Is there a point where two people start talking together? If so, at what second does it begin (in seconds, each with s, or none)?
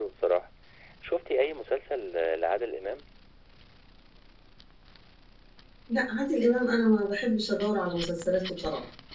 none